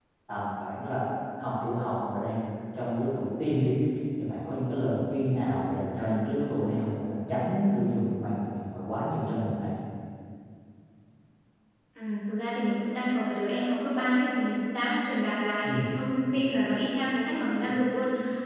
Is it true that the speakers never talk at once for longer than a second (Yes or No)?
Yes